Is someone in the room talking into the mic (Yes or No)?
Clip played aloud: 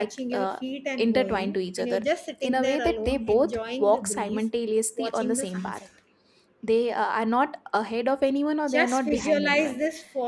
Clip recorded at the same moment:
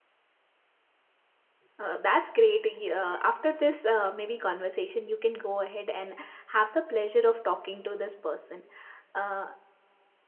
Yes